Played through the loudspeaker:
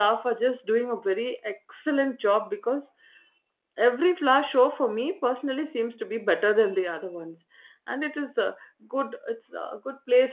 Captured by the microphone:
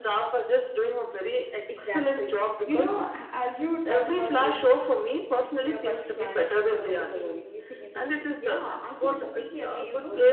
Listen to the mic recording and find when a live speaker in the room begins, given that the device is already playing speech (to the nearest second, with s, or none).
2 s